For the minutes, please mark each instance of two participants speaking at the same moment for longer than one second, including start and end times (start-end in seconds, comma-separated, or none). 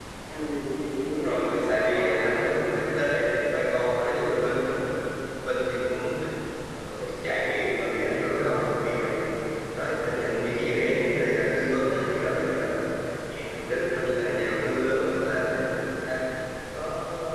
1.1-2.4